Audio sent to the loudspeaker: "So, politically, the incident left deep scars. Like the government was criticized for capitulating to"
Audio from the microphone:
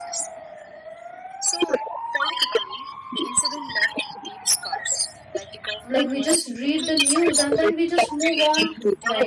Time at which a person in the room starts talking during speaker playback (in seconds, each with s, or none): 5.9 s